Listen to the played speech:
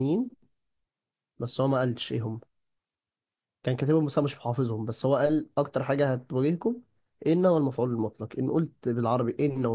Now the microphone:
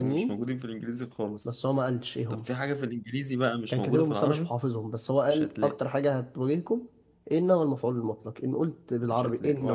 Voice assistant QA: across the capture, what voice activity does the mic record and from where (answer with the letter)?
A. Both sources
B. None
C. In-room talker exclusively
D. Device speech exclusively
A